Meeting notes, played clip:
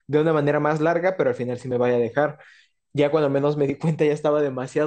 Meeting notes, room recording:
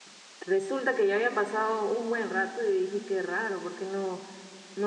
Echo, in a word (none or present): none